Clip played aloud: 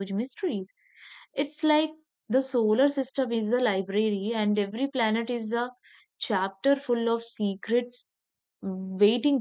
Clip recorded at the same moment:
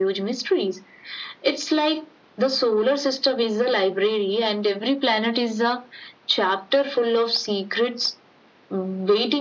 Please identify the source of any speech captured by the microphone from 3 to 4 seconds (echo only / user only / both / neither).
echo only